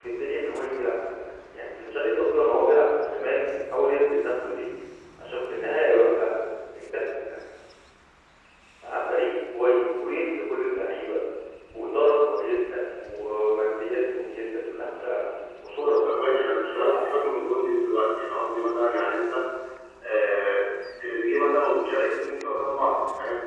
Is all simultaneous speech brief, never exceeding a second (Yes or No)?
No